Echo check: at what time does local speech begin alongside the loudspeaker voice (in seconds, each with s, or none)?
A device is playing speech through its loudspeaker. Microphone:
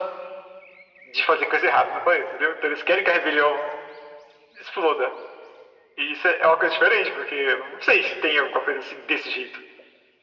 none